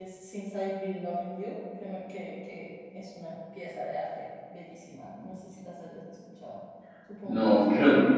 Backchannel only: No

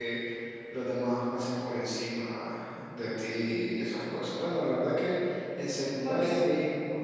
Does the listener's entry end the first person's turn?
No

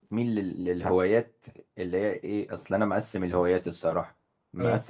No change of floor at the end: Yes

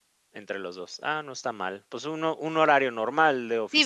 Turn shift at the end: Yes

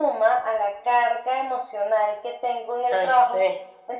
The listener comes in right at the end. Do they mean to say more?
No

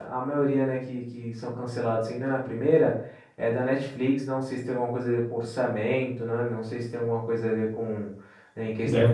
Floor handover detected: No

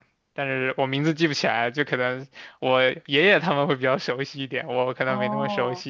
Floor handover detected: Yes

